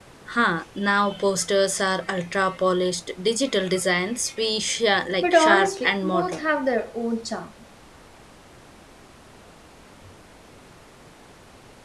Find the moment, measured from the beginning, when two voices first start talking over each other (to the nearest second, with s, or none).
5 s